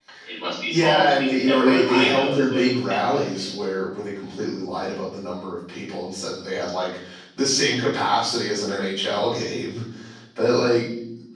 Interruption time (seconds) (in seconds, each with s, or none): 0.7 s